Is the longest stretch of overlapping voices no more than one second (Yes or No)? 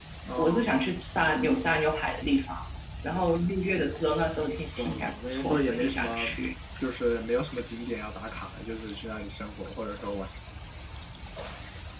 No